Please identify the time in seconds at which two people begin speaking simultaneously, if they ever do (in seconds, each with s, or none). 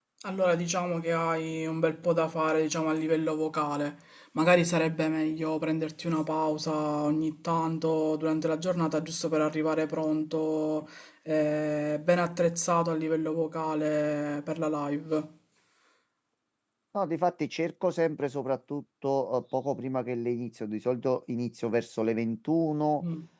none